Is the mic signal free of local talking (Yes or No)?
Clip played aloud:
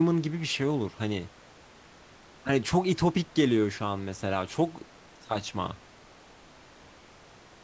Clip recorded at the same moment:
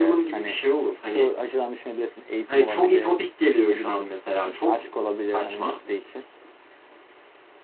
No